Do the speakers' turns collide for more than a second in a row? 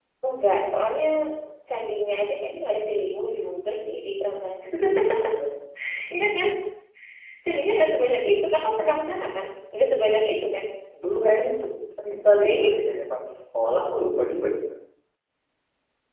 No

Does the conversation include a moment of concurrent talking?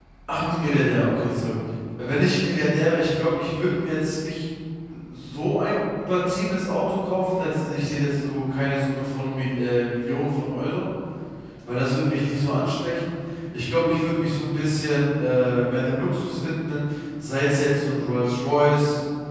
No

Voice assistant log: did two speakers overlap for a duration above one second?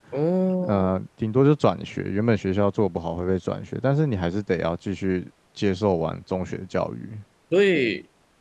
No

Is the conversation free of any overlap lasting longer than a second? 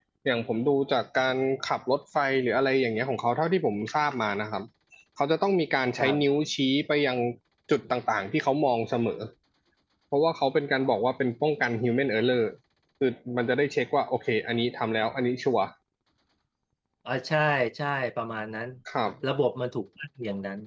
Yes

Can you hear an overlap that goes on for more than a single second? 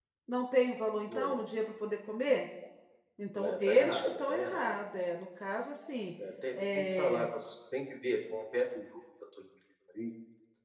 Yes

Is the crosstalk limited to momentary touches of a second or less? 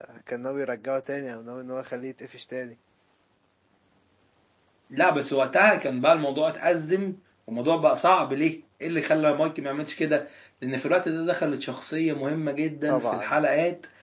Yes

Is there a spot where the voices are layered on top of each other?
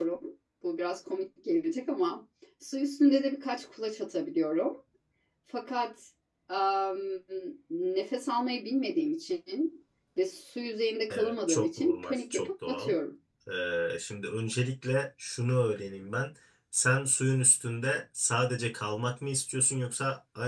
Yes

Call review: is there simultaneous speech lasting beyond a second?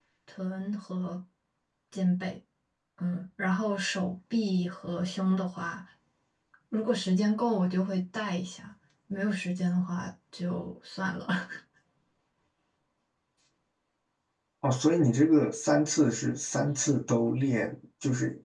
No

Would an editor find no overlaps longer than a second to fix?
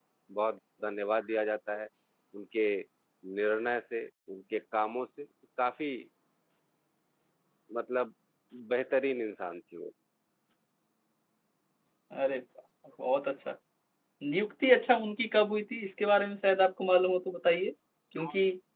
Yes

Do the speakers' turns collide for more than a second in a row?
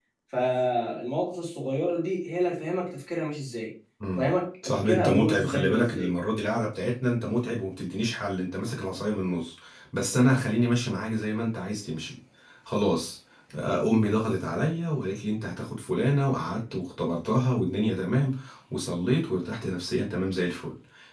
Yes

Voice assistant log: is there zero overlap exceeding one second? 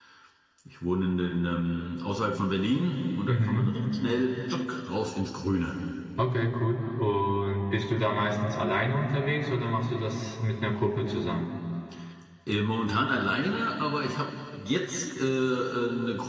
Yes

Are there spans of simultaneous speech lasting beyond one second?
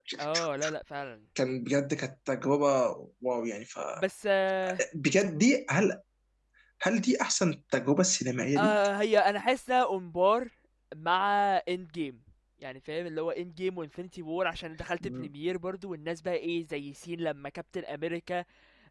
No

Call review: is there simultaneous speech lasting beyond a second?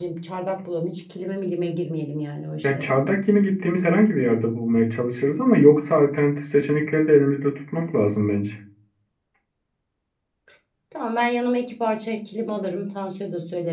No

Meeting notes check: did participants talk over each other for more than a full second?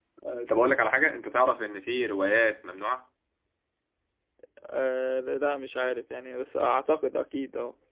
No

